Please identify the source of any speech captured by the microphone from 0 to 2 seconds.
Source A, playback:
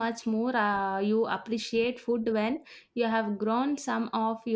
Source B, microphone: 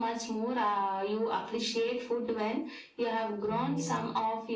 echo only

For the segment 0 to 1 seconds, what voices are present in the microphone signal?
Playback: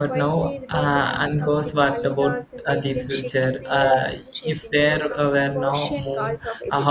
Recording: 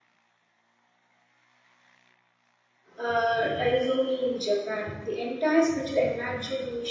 neither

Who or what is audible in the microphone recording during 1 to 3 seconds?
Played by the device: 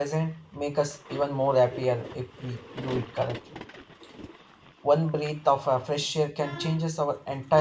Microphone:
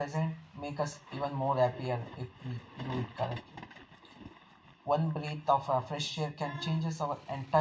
echo only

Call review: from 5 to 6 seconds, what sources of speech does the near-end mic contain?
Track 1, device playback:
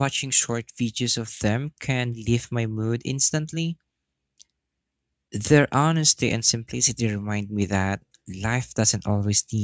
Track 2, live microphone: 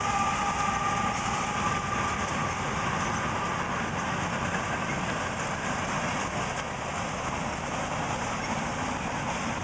neither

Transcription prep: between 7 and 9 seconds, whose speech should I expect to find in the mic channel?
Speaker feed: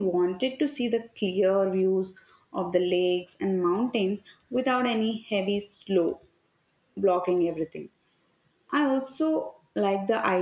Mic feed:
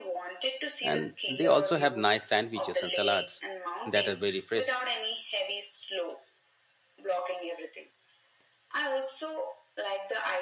echo only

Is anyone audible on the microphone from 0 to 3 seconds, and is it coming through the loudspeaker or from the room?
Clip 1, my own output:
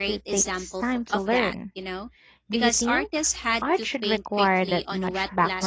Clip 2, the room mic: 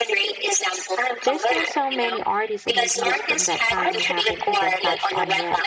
both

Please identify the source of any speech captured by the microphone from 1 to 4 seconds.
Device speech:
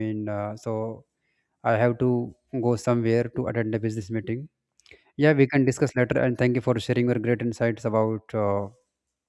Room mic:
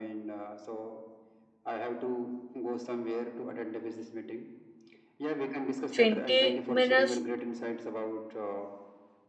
echo only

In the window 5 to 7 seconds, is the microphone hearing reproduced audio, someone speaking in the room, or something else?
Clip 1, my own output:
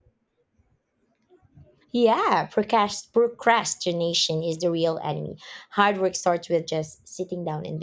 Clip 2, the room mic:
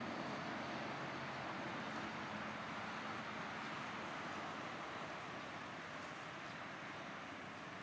neither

